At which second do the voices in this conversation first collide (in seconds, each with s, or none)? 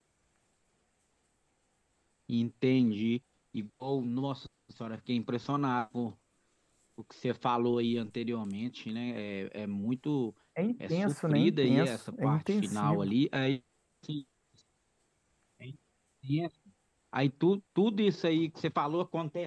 10.9 s